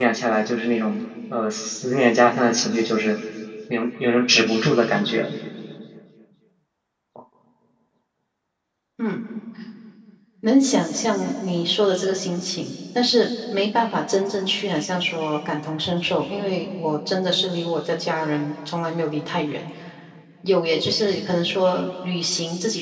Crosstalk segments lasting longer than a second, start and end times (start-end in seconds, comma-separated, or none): none